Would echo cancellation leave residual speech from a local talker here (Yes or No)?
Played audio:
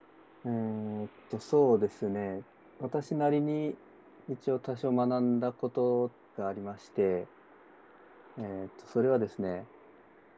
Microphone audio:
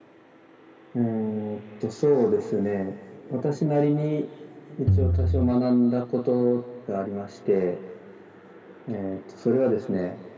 Yes